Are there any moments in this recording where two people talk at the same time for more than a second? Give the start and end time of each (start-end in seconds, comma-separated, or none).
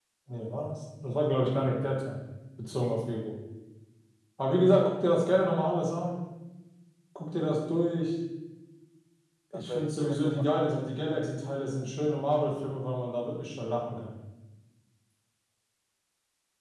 9.5-10.9